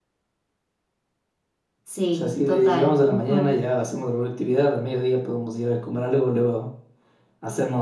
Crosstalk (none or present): present